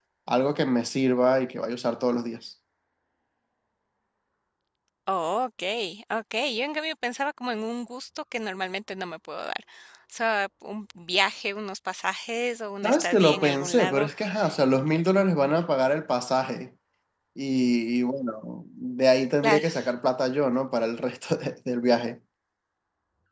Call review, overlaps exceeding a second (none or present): present